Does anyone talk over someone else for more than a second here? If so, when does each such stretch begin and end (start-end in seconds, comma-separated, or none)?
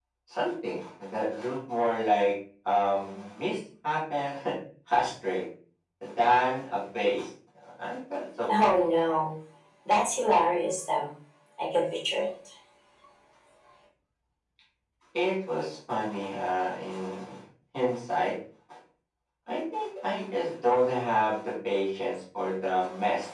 none